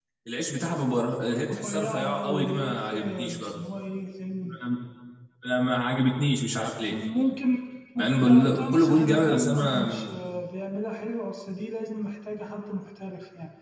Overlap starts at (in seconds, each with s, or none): 1.5 s